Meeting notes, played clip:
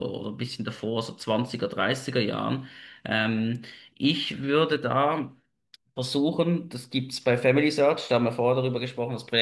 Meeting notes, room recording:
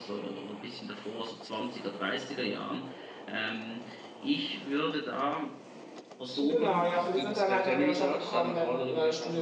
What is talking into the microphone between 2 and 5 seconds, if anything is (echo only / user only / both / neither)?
echo only